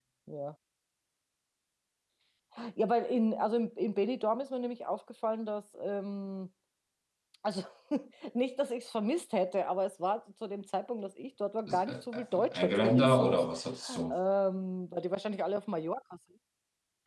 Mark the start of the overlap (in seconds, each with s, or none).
11.7 s